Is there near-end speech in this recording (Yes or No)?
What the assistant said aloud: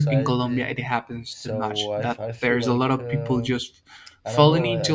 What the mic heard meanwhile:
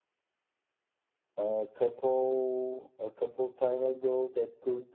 Yes